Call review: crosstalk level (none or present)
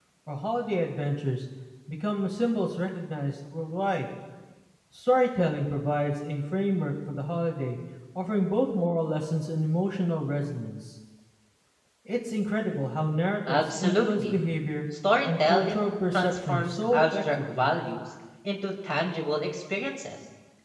present